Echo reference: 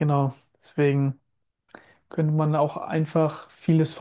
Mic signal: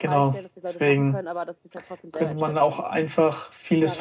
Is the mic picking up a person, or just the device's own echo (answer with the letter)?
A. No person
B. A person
B